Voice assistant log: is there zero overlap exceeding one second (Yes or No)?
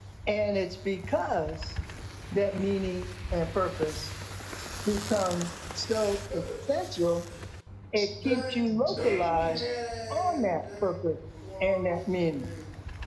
No